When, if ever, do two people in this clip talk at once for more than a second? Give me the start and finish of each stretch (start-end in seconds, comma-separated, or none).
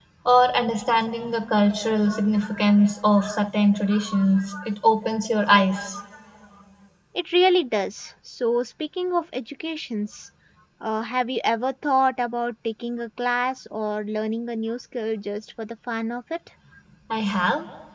none